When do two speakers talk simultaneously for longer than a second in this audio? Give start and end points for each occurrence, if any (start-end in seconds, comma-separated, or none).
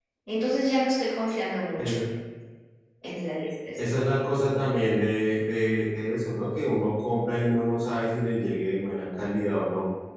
none